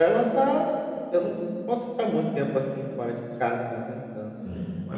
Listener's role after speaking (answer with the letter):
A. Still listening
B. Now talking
B